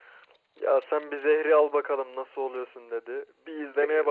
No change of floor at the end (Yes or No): Yes